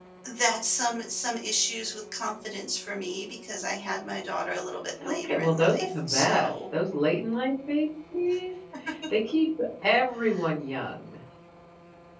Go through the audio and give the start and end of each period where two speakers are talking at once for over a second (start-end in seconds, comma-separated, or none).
5.0-6.5